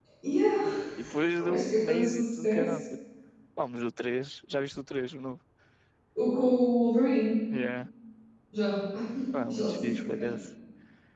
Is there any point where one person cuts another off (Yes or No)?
Yes